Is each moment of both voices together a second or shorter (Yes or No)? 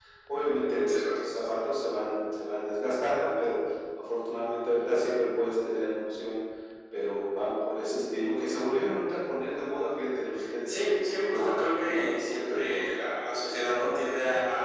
No